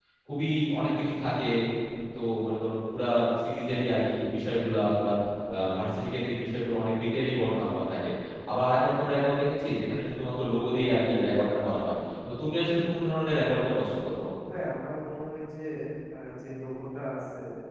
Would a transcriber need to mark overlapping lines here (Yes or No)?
No